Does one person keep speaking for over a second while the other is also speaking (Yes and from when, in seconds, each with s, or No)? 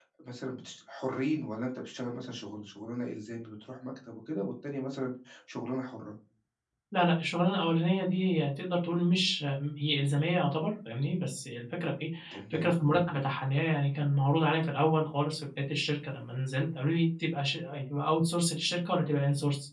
No